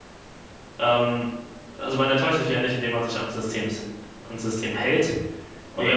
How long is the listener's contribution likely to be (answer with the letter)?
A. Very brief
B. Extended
A